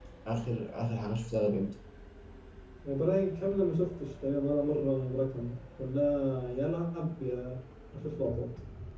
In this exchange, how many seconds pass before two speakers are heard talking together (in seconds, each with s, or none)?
none